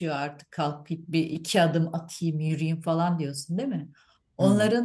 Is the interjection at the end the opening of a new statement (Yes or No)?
No